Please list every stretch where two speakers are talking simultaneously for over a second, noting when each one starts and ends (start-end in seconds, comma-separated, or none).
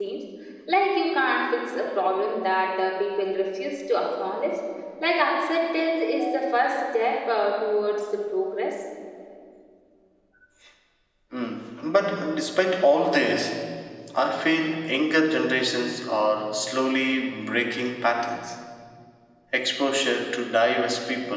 none